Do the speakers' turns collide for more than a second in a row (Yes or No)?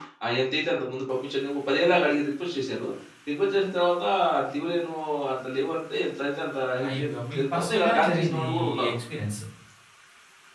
Yes